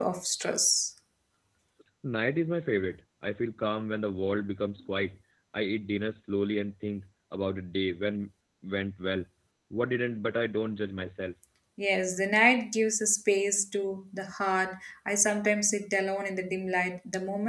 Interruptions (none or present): none